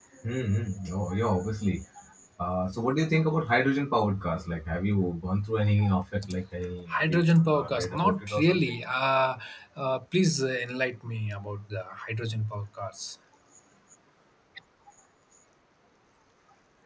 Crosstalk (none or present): present